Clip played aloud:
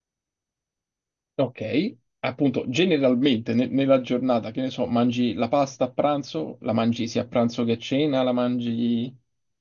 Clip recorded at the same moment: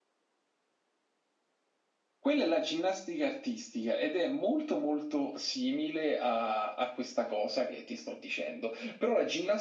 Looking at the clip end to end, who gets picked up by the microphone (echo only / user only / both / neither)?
user only